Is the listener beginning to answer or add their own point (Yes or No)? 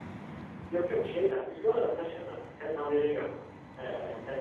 No